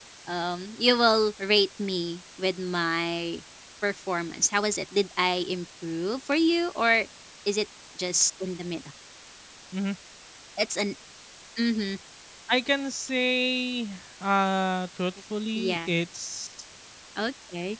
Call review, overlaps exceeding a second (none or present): none